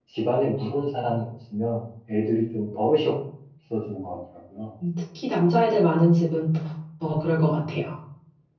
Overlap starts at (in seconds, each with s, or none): none